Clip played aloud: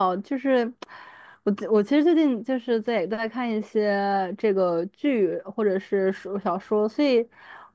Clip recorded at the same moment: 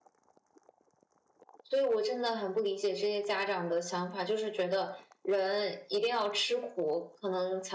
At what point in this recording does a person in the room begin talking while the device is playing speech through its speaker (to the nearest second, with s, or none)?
2 s